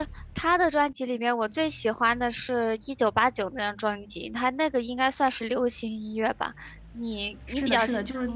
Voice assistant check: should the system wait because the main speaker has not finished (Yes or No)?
No